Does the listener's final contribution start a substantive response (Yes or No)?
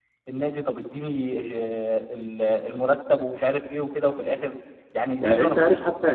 Yes